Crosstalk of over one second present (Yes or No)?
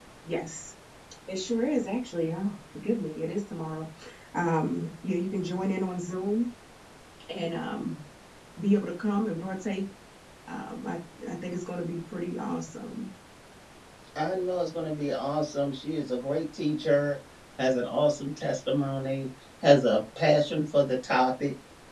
No